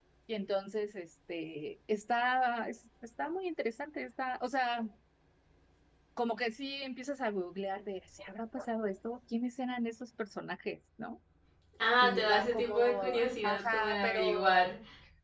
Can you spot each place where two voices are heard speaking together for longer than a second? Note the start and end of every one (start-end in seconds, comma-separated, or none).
12.0-14.7